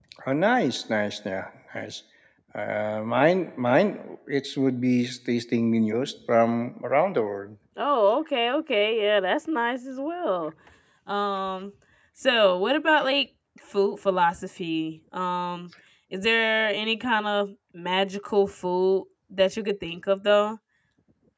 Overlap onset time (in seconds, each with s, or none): none